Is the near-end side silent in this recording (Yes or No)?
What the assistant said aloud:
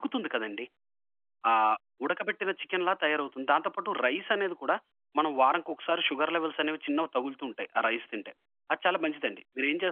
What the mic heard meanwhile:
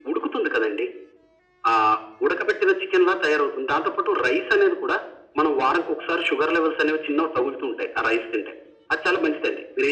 Yes